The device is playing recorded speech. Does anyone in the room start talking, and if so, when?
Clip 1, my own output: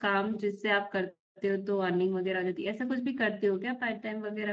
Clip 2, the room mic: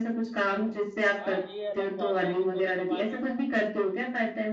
1 s

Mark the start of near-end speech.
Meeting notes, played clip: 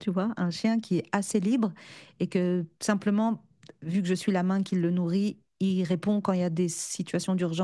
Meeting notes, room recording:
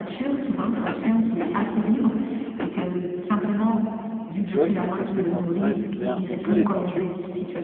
4 s

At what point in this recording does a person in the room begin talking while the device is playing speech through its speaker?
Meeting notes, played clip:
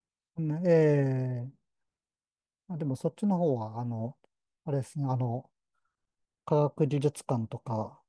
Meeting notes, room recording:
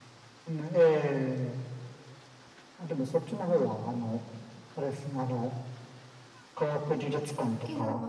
7 s

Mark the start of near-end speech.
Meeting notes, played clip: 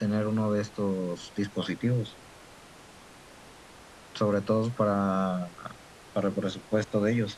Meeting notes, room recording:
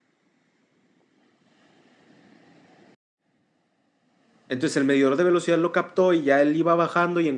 4 s

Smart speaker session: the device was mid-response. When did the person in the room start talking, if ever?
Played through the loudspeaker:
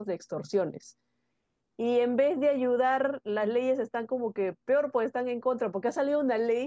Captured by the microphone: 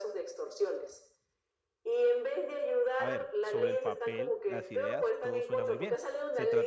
3 s

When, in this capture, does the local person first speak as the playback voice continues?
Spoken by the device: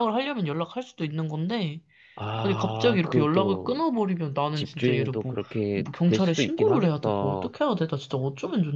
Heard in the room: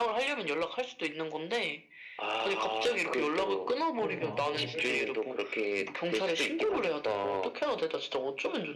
4 s

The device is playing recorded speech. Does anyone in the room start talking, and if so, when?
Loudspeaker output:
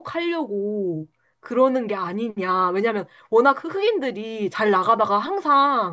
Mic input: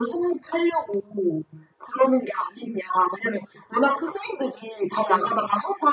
none

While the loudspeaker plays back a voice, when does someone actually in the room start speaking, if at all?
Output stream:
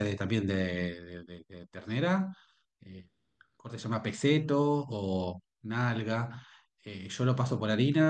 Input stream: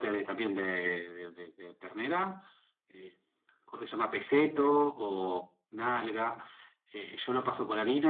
none

